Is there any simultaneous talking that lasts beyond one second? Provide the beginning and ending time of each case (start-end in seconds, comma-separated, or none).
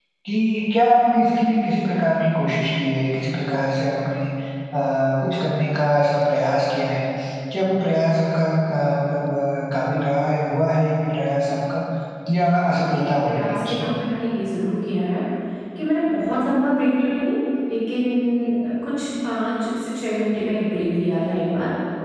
12.6-13.9